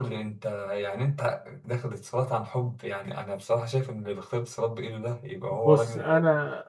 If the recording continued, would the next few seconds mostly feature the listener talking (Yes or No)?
Yes